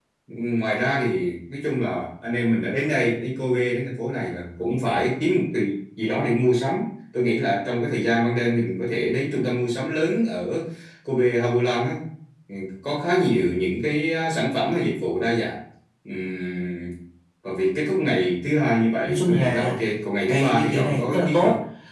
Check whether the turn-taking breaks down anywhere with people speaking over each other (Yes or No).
Yes